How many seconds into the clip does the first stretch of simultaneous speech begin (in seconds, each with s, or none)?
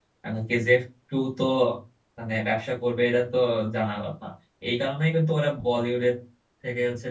none